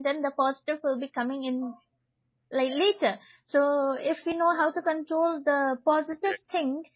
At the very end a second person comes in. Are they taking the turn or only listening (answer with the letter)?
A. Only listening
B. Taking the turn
A